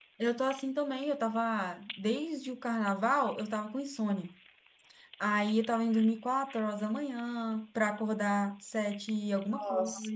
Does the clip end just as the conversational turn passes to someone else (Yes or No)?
No